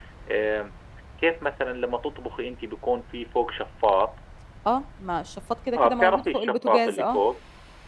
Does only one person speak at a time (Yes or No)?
No